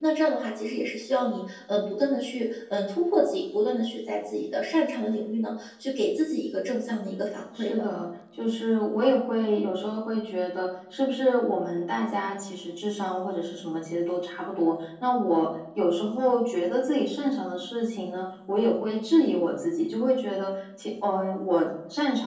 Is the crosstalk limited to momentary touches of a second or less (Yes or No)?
Yes